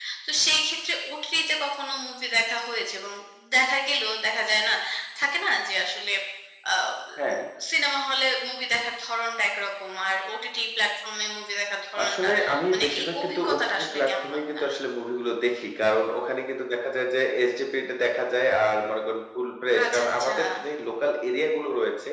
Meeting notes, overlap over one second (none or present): present